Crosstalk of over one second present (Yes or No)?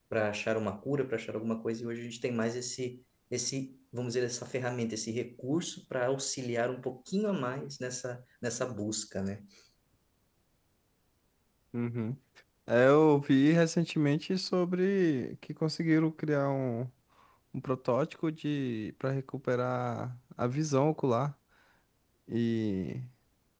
No